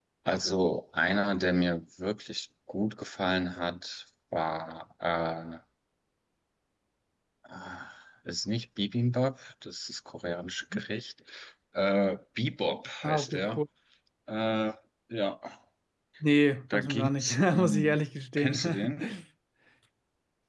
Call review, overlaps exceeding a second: present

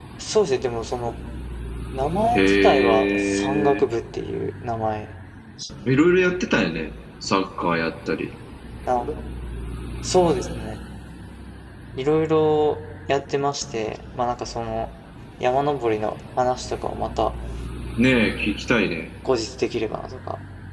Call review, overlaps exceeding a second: present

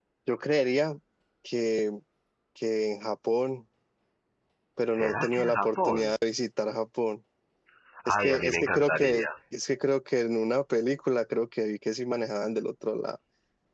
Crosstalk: present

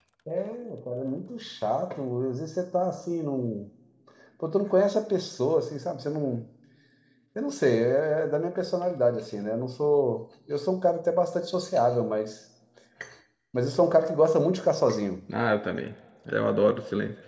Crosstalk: none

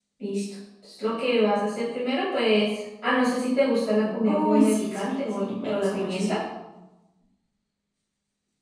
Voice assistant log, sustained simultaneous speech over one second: present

